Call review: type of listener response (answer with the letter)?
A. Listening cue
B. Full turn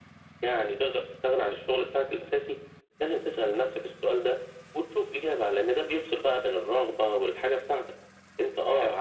A